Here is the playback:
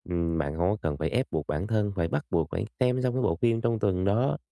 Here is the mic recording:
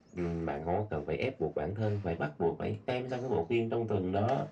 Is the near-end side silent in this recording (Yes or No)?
Yes